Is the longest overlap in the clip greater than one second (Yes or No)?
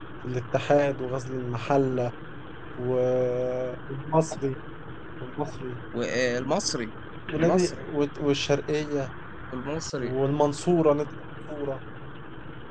No